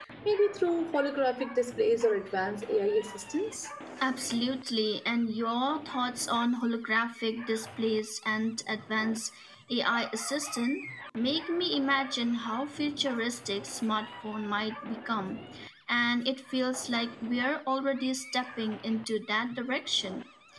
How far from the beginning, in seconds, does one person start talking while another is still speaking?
none

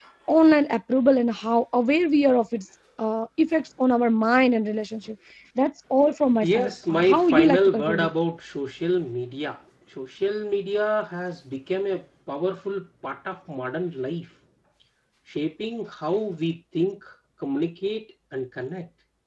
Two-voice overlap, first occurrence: 6 s

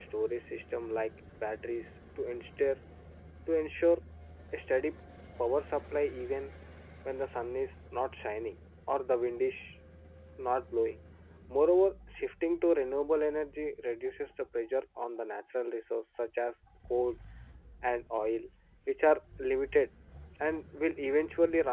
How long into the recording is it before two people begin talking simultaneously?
none

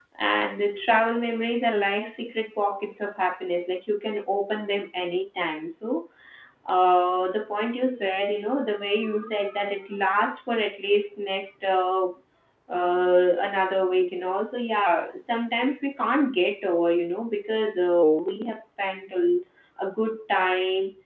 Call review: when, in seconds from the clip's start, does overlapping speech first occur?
none

